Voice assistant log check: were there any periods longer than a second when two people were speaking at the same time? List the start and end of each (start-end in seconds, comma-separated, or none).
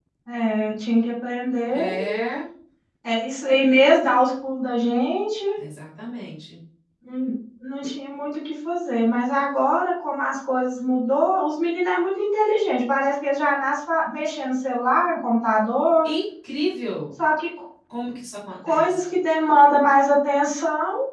none